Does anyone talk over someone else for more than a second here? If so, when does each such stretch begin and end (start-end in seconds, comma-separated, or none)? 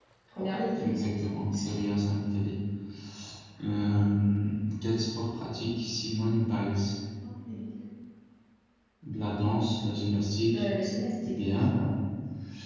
none